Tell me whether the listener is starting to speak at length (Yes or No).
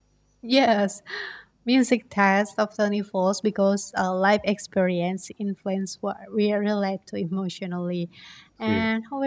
No